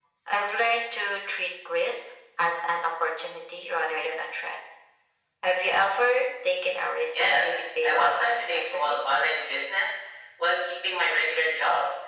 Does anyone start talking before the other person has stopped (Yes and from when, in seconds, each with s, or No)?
Yes, from 7.1 s